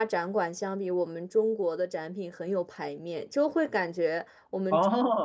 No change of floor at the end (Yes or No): Yes